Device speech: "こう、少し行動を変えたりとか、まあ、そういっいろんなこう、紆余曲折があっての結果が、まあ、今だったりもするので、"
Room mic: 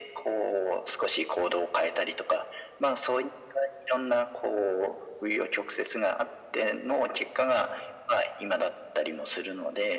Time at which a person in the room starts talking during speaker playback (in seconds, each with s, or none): none